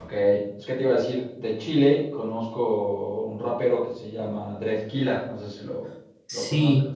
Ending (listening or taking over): taking over